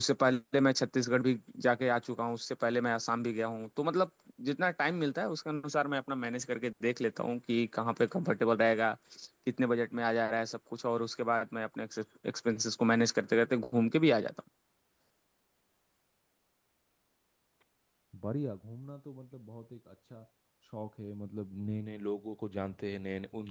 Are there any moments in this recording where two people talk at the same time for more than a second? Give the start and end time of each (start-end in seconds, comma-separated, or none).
none